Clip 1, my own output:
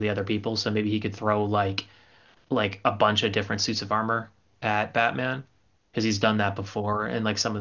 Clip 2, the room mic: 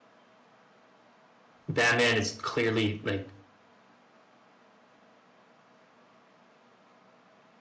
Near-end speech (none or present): present